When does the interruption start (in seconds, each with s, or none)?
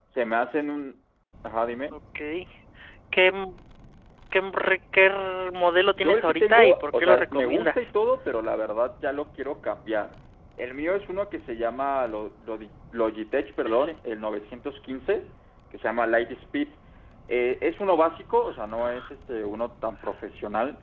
6.0 s